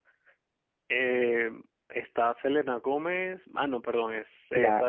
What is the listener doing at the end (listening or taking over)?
taking over